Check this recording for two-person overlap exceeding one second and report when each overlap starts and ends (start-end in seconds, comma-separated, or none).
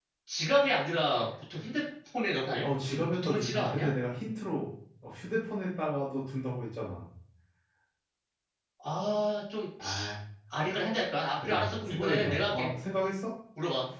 2.6-3.9, 11.4-12.7